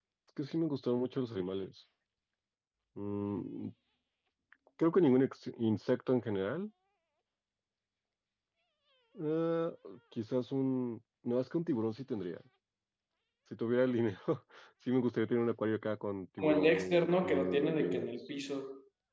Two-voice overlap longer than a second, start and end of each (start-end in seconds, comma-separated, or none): 16.4-18.1